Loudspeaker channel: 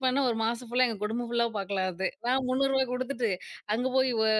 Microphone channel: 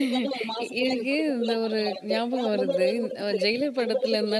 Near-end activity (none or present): present